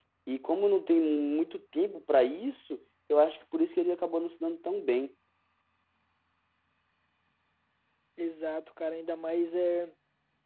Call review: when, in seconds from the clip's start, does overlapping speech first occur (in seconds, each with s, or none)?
none